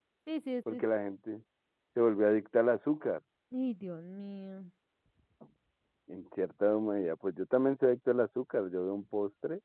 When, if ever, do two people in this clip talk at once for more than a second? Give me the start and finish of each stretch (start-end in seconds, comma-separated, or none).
none